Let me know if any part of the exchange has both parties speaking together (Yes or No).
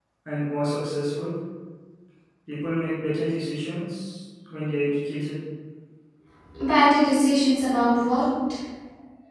No